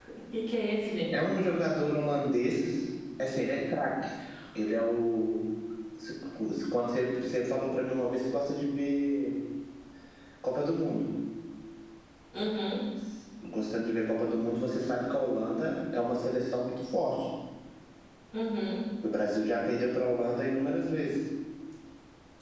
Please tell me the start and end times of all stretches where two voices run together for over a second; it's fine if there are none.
none

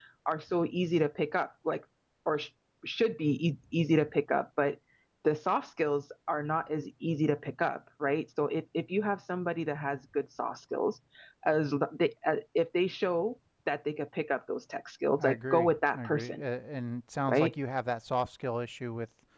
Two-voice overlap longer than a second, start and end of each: 15.2-16.4

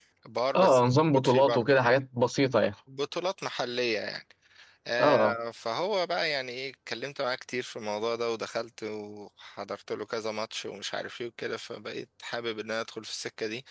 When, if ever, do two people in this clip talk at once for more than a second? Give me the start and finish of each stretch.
0.6-1.8

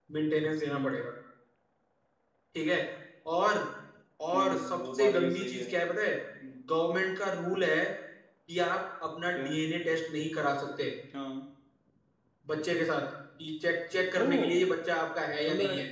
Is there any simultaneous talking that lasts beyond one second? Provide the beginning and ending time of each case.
4.3-5.6

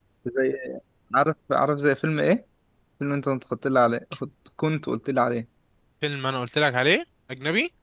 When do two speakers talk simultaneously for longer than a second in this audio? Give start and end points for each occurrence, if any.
none

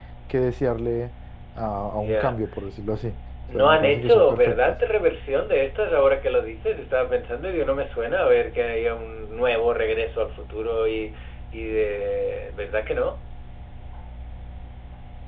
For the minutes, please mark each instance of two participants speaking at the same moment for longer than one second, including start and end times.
3.5-4.8

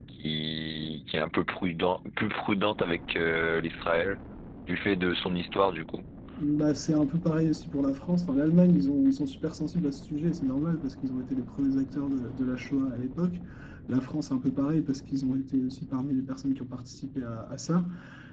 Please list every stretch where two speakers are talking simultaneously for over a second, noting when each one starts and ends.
none

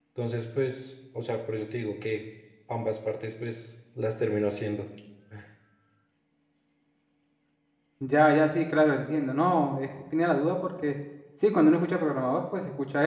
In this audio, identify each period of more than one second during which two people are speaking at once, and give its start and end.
none

